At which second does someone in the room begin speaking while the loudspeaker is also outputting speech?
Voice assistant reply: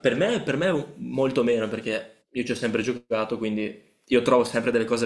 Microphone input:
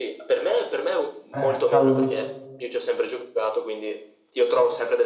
1.3 s

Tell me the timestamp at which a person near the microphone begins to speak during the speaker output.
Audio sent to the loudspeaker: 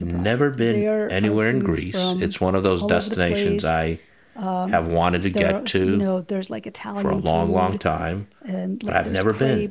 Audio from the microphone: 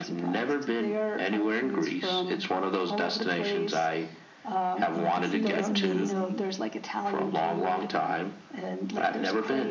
4.9 s

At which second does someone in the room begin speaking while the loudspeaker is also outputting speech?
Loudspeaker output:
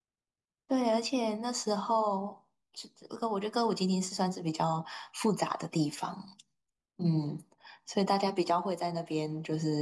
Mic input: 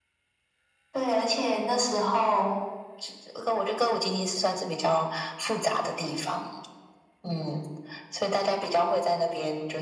none

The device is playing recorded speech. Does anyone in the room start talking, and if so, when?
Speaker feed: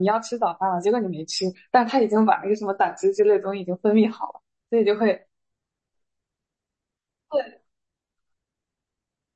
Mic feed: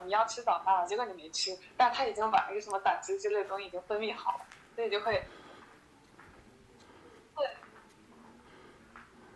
none

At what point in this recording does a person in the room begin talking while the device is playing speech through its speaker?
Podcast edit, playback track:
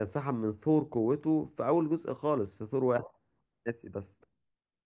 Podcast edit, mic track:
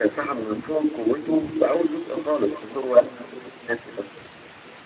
none

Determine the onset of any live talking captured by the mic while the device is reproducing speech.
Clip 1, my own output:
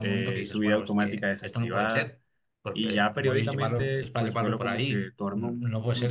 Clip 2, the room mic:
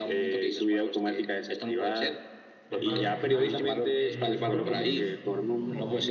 2.7 s

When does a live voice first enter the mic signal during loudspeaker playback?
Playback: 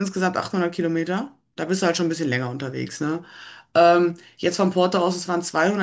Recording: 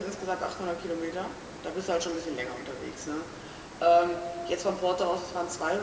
none

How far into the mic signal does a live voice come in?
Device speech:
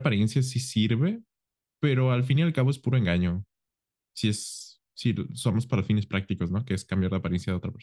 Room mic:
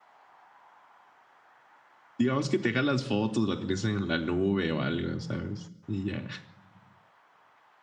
2.2 s

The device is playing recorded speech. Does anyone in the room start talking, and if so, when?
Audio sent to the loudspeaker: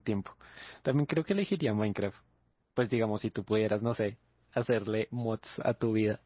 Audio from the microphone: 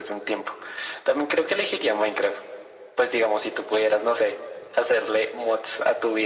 none

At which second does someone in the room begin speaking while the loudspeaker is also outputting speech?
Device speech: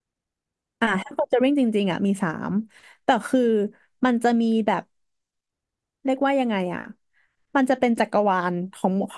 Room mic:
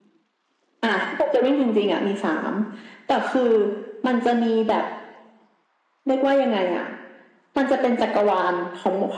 none

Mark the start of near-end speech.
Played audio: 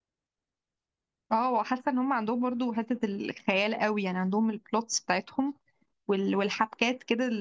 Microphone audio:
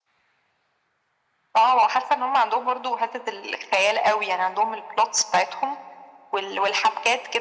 none

